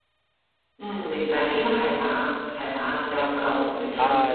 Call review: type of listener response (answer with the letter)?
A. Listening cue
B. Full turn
B